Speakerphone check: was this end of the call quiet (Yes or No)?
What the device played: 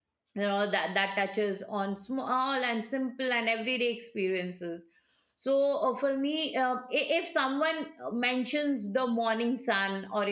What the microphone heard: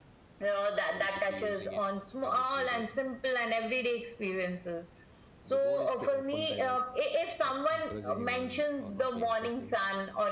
No